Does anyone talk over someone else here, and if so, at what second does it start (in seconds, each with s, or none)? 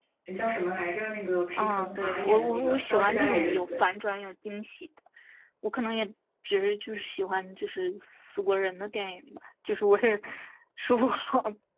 1.6 s